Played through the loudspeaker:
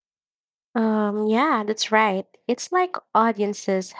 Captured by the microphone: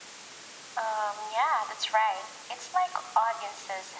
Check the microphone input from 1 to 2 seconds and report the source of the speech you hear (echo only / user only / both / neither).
echo only